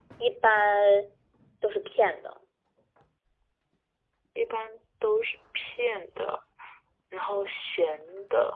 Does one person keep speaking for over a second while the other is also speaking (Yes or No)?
No